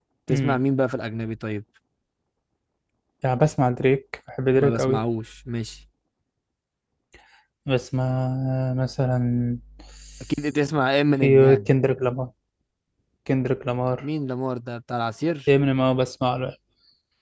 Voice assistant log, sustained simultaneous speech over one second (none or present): none